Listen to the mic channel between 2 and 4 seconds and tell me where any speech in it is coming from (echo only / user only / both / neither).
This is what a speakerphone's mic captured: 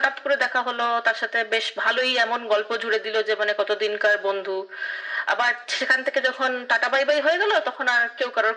echo only